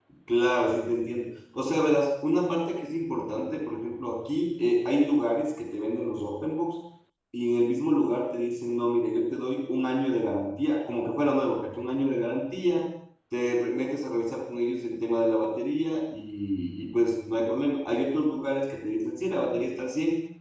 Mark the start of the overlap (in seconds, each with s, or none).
none